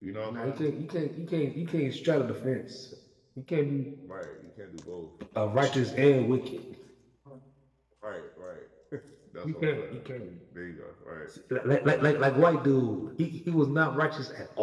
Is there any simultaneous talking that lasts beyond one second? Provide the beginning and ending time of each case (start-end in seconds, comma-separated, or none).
none